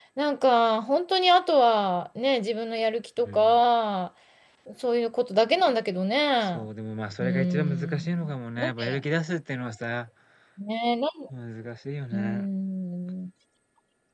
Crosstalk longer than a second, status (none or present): present